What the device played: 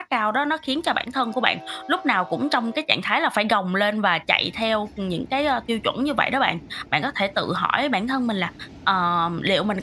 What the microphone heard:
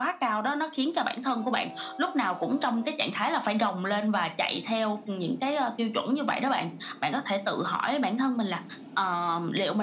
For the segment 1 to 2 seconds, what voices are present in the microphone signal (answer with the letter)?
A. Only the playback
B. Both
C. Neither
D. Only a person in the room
A